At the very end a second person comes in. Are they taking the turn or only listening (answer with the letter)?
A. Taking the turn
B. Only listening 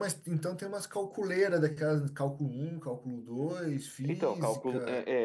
A